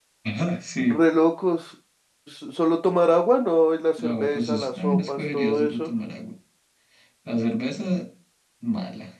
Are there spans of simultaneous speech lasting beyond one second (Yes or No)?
Yes